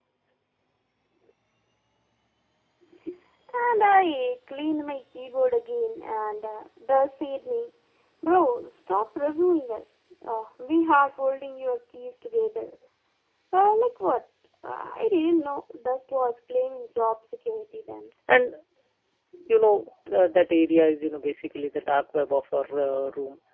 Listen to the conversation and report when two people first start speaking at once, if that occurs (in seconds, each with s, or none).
none